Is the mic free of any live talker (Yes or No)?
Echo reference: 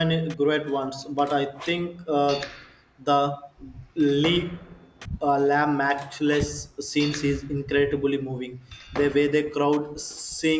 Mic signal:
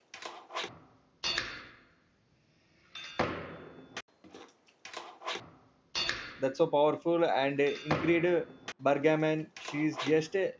No